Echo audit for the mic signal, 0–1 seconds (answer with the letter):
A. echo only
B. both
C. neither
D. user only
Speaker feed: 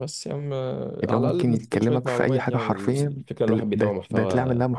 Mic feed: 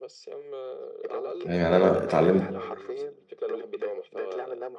A